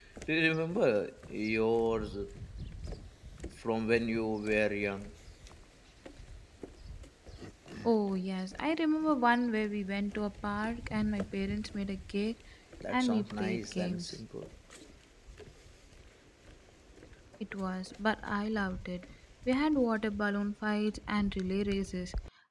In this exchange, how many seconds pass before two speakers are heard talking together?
12.9 s

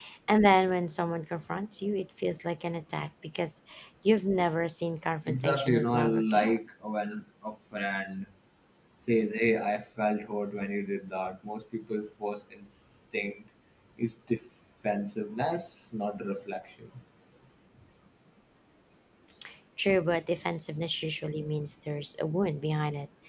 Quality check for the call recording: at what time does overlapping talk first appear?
5.3 s

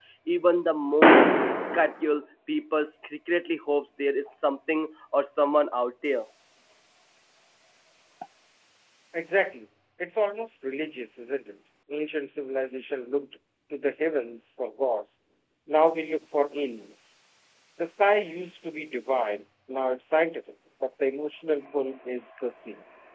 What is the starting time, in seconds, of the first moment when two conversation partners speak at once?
none

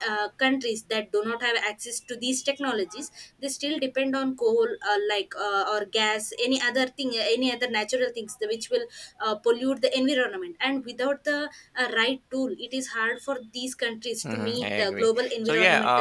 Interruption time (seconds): 14.2 s

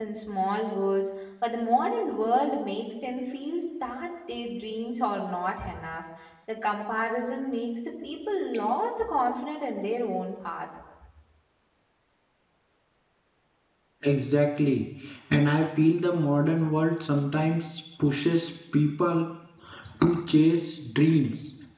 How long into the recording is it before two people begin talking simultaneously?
none

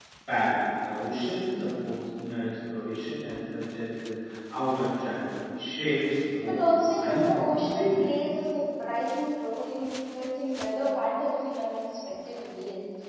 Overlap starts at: 6.3 s

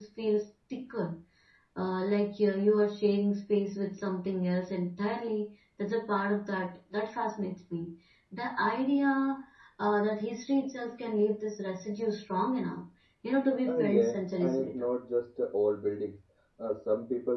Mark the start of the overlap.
13.7 s

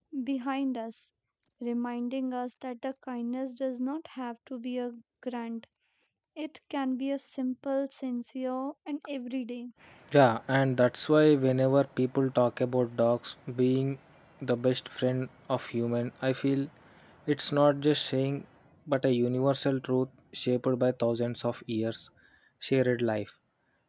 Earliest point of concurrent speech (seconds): none

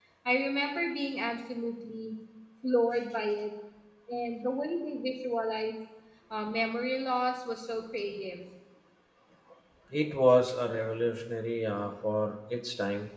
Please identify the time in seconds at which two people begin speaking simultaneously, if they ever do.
none

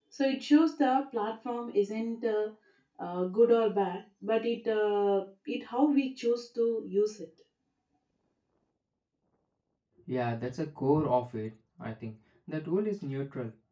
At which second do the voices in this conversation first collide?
none

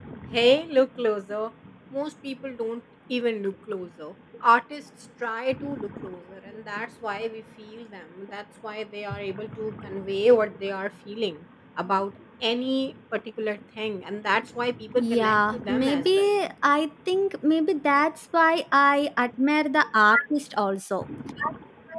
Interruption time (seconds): 15.0 s

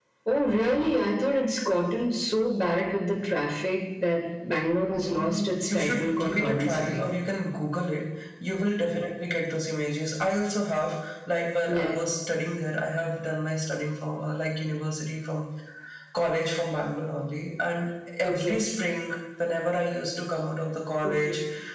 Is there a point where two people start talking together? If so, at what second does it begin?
4.9 s

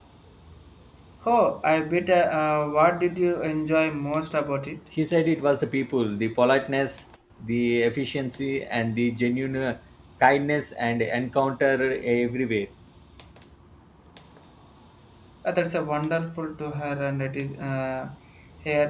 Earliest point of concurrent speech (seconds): none

